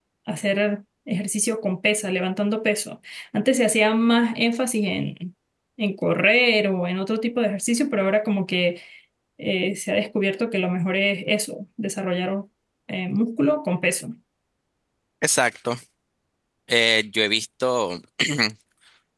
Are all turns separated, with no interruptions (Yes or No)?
Yes